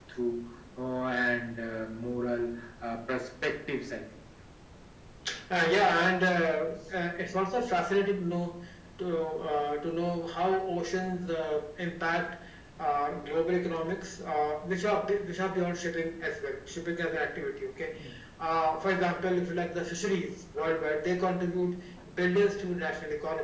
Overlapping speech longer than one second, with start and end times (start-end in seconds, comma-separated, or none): none